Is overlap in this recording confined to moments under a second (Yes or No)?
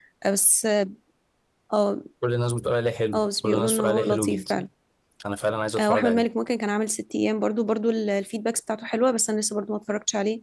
No